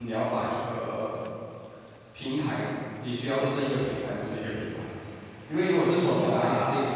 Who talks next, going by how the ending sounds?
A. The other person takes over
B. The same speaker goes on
B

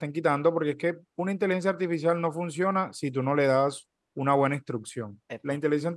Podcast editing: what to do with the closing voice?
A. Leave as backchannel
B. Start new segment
A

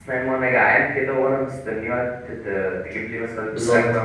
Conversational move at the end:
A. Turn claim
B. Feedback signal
A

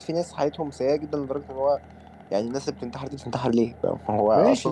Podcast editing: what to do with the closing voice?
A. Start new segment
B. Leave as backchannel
A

